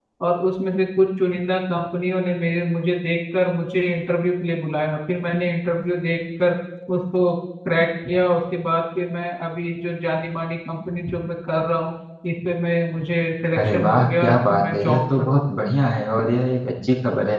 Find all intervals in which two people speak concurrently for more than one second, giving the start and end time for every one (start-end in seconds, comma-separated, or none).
13.6-15.4